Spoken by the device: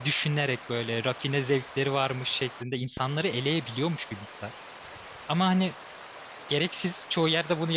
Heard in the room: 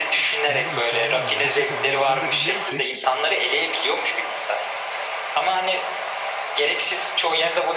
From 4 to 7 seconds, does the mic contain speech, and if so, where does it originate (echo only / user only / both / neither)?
echo only